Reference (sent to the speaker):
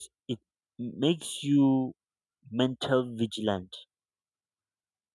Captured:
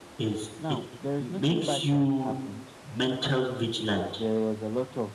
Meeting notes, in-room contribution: present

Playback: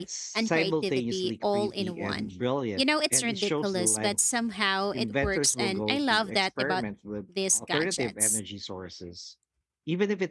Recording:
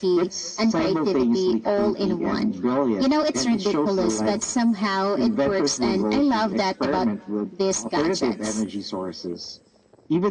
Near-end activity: none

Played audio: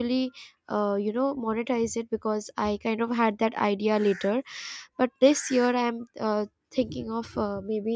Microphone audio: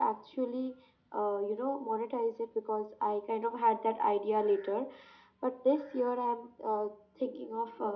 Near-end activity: none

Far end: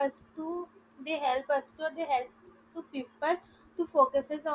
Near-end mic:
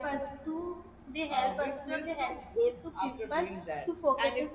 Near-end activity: present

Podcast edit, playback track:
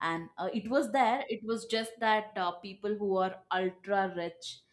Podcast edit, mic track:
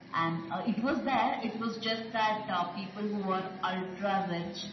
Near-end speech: none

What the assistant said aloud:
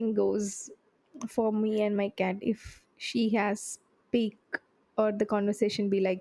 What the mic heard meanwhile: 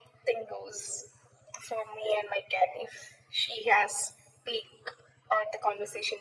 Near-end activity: none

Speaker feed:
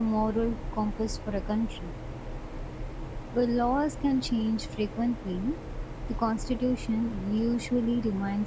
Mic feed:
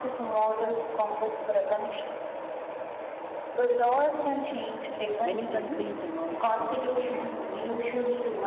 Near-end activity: present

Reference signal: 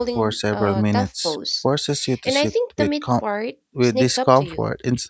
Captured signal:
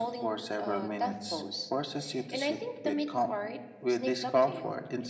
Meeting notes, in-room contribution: none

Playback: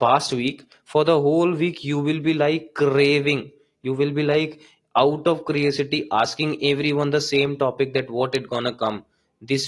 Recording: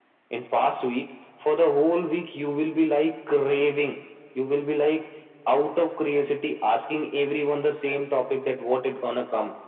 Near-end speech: none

